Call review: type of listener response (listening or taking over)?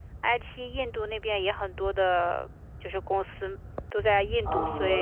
taking over